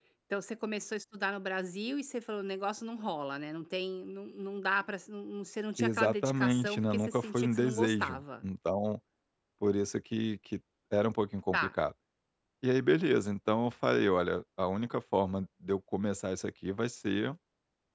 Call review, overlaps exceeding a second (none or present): present